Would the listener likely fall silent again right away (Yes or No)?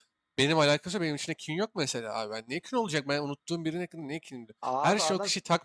Yes